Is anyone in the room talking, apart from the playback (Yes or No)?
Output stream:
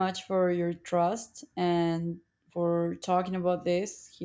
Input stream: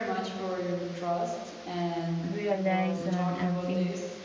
Yes